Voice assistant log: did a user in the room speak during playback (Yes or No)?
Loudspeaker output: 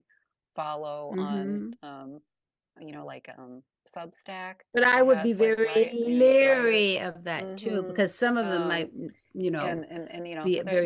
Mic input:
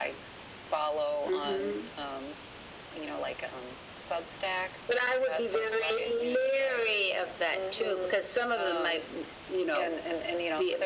No